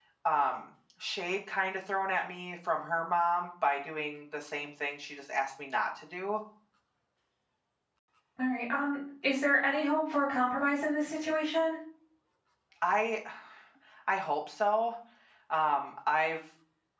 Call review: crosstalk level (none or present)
none